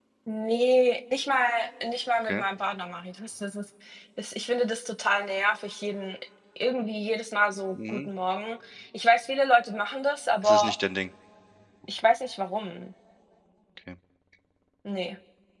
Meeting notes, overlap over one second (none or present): none